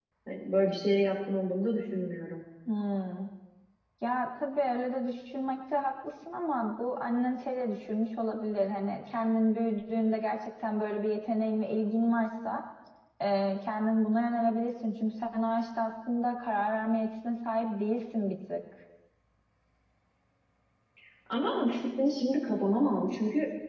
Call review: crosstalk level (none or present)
none